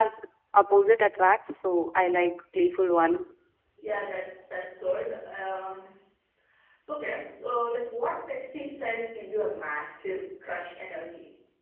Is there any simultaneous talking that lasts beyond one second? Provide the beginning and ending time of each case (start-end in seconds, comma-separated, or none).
none